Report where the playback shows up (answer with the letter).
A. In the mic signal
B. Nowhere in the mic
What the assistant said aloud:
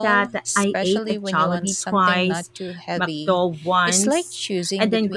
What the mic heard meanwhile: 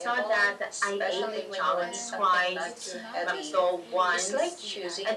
A